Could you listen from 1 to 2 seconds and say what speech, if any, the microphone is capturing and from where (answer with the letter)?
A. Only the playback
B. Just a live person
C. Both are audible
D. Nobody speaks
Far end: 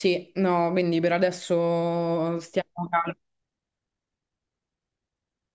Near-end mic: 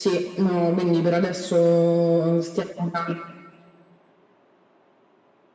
A